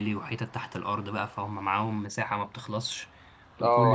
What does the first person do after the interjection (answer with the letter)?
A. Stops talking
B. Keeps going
A